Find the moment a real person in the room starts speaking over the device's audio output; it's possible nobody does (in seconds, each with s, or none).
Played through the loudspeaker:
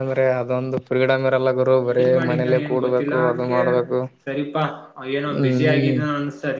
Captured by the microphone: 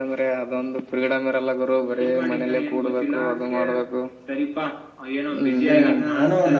5.6 s